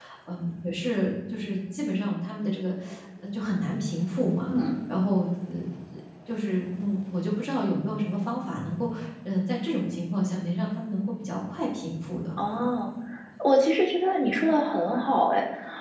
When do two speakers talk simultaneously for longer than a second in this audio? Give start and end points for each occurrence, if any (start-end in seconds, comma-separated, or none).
none